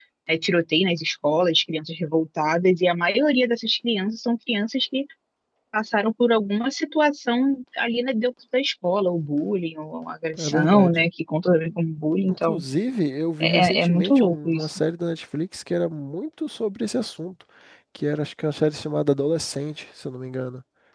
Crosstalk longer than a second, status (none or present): present